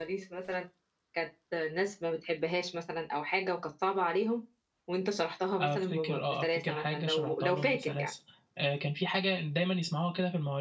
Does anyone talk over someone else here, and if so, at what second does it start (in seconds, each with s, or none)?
5.6 s